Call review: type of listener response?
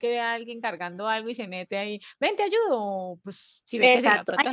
taking over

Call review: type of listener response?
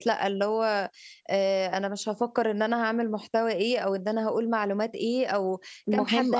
listening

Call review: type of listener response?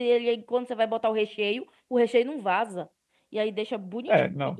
taking over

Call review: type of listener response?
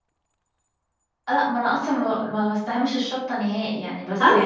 taking over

